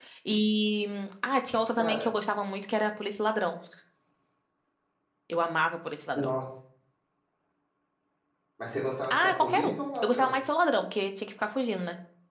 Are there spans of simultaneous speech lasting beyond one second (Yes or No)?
Yes